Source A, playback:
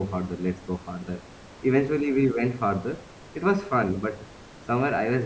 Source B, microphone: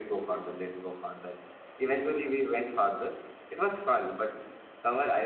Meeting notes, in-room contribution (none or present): none